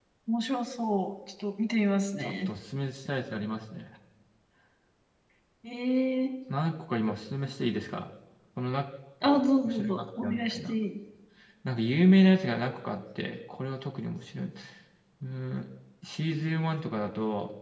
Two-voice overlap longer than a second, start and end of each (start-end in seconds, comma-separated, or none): 9.2-10.7